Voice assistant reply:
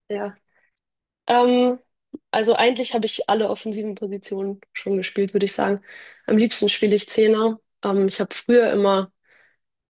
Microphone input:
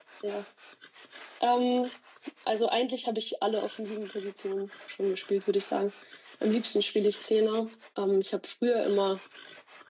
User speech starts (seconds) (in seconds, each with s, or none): none